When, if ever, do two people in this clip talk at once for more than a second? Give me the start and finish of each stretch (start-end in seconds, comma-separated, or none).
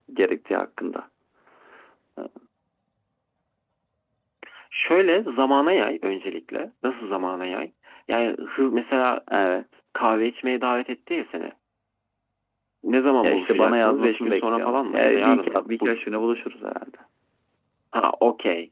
13.2-16.0